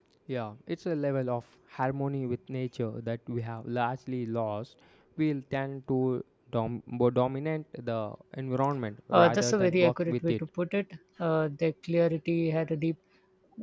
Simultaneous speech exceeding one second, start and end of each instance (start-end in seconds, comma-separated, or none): 9.1-10.4